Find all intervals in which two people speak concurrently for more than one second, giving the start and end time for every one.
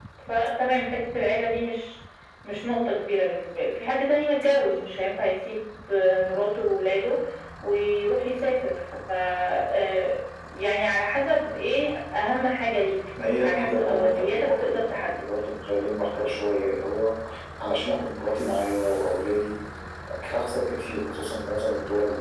13.4-15.2

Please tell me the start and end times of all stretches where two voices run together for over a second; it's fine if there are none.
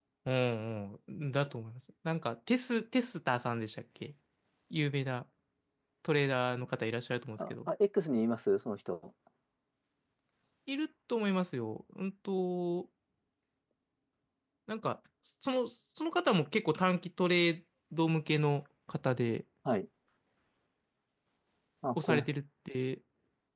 none

